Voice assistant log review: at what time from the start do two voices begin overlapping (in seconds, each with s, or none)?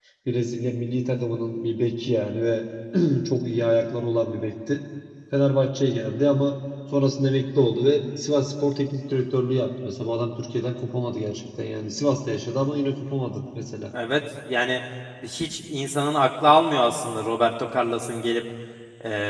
none